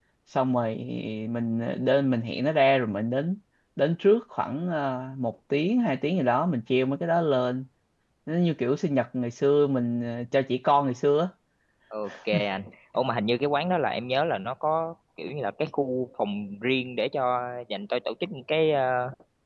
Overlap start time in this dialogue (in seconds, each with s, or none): none